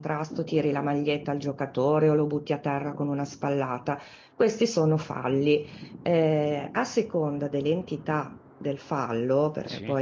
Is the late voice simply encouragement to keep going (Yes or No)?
Yes